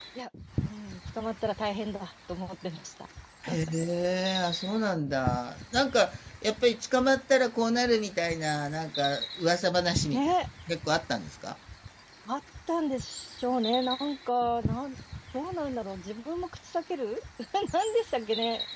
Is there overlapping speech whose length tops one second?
No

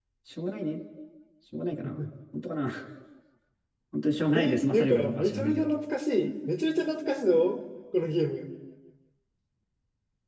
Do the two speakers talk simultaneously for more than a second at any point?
Yes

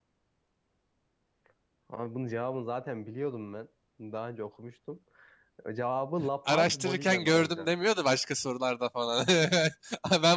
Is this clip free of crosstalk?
No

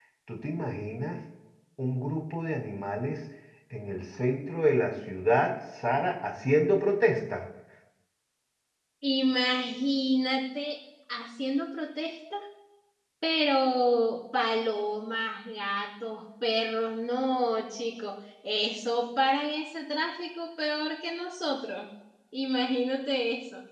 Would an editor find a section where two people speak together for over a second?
No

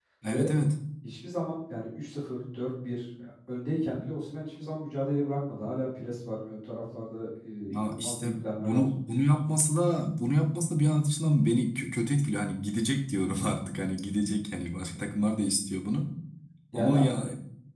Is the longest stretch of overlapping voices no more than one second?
No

